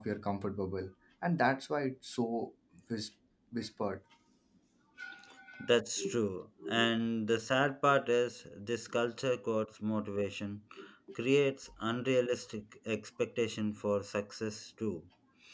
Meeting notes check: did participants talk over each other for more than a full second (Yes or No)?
No